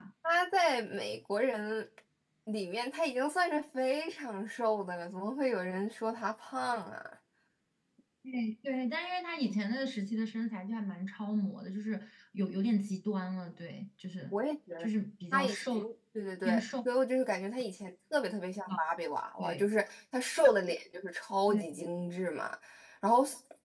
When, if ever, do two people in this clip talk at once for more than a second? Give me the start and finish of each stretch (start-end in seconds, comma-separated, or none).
none